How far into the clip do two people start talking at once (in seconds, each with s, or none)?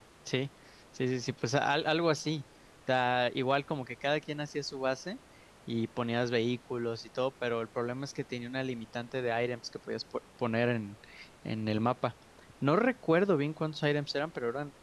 none